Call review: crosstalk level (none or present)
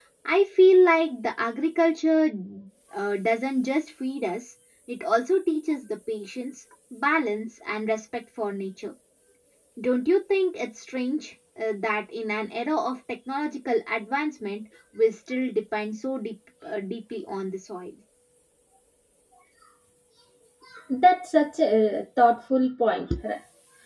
none